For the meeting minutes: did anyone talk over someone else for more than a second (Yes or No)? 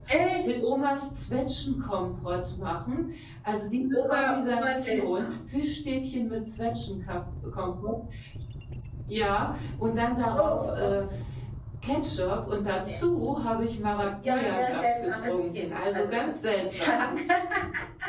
Yes